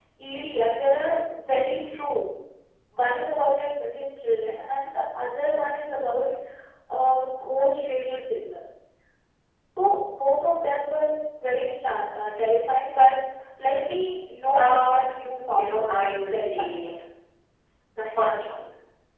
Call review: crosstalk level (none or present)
present